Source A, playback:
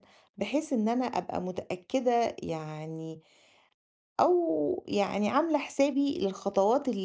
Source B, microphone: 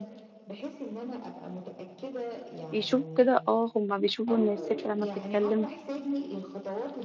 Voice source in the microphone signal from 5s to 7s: both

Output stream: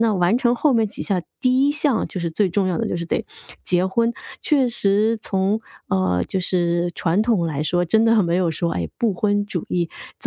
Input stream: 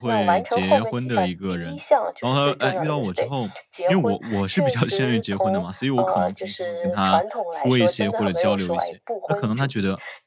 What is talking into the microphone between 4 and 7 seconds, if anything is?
both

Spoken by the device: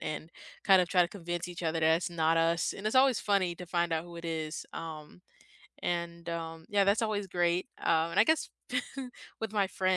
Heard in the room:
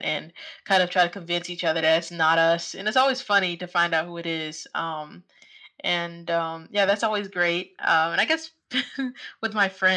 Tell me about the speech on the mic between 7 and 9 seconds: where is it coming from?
echo only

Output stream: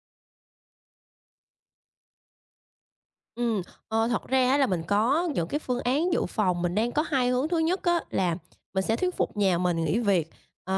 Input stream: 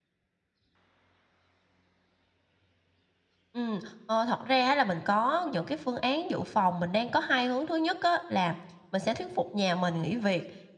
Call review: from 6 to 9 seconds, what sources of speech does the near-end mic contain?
echo only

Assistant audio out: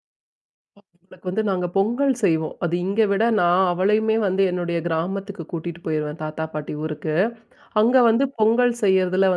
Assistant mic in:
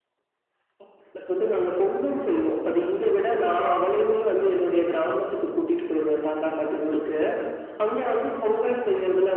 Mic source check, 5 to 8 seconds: echo only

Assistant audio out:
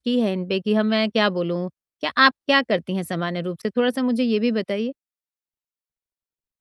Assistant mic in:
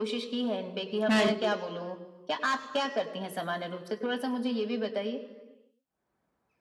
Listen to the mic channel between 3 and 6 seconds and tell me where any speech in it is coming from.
echo only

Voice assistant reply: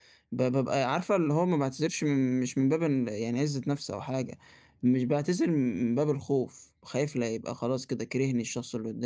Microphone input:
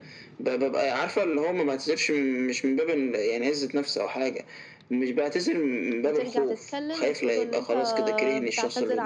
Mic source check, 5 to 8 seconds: both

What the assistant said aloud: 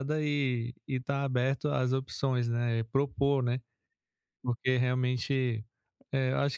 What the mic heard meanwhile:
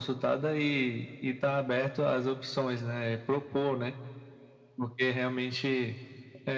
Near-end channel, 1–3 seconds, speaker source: echo only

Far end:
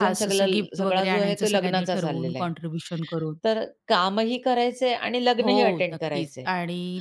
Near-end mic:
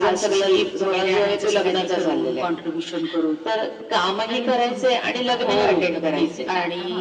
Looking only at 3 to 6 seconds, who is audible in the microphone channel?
both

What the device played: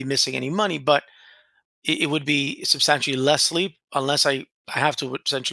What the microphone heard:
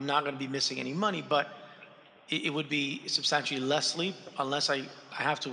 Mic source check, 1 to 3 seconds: echo only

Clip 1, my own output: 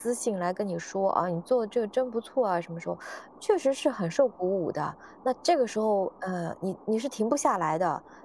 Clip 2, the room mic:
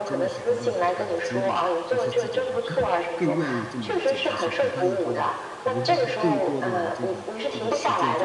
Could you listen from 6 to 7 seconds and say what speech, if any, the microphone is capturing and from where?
both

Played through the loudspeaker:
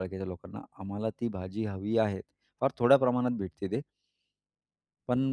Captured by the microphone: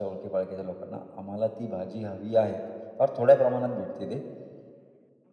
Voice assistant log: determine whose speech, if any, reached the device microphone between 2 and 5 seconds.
echo only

